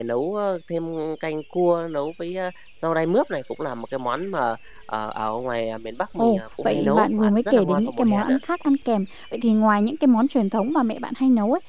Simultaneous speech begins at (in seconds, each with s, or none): 6.2 s